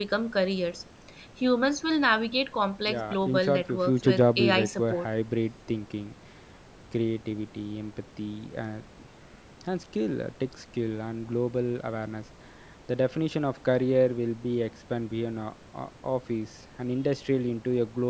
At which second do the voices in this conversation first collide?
2.9 s

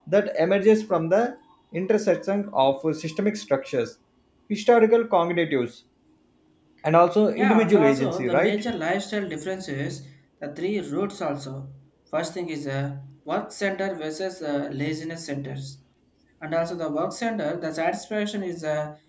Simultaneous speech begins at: 7.4 s

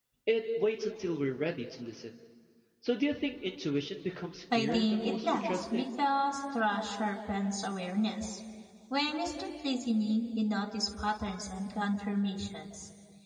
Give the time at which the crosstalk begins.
4.5 s

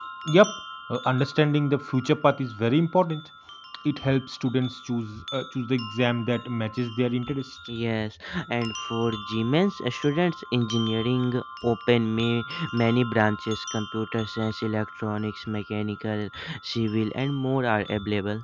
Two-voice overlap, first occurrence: none

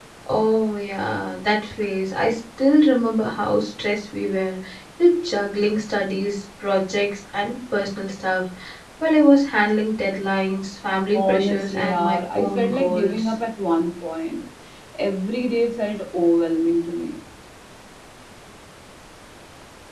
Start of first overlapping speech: 11.1 s

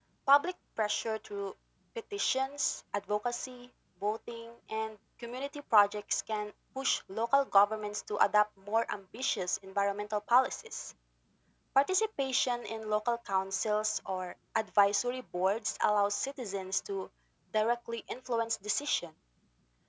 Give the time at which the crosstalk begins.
none

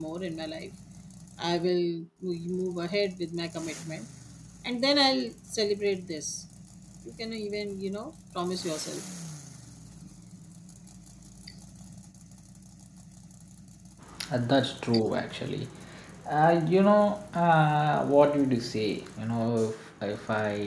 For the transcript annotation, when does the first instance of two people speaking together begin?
none

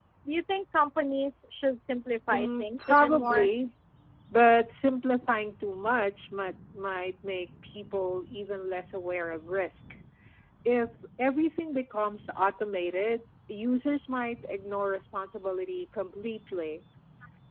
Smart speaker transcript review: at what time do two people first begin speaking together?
2.3 s

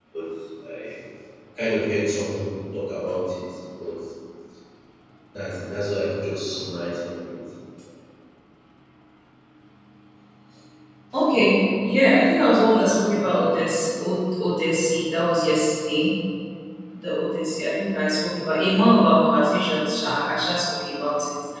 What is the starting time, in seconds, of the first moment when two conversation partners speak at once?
none

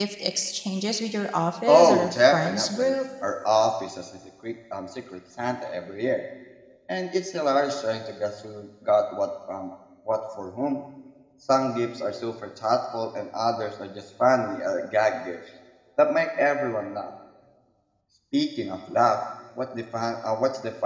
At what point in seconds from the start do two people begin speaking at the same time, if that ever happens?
1.7 s

